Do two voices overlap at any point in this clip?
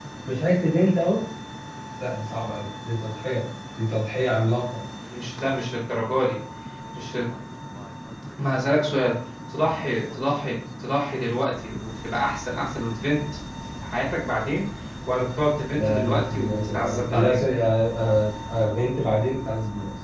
Yes, from 15.8 s

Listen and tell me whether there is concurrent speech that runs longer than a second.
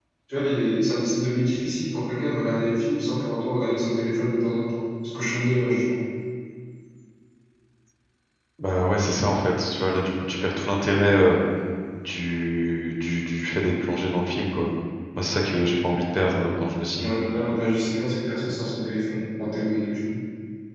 No

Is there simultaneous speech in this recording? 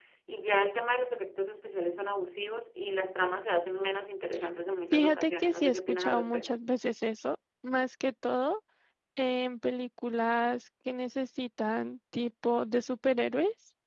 Yes, from 4.9 s

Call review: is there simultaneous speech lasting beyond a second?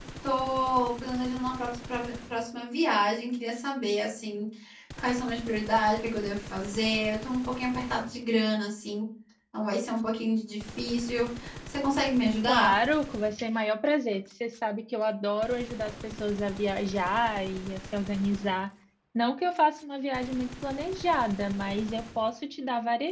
No

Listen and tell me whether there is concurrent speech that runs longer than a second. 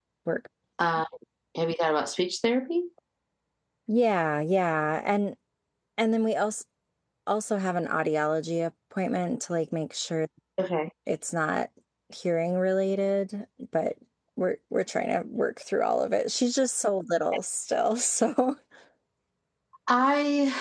No

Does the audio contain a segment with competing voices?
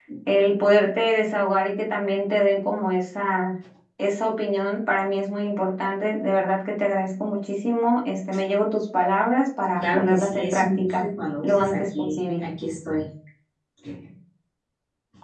Yes, from 9.8 s

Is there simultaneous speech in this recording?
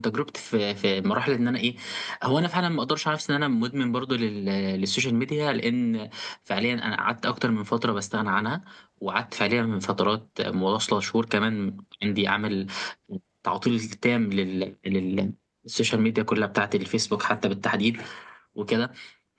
No

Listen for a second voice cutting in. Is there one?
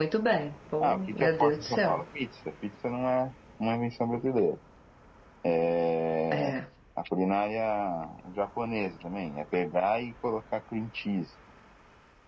Yes, from 0.8 s

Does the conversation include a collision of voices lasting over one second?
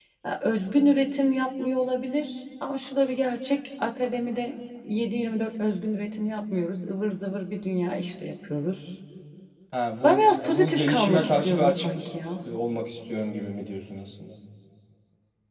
Yes, from 10.0 s

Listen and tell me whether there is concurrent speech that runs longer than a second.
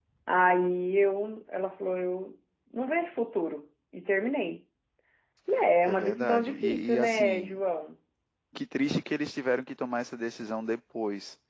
Yes, from 5.9 s

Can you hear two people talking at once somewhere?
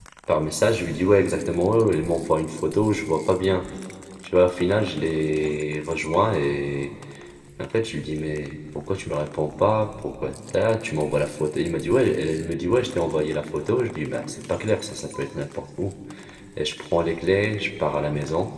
No

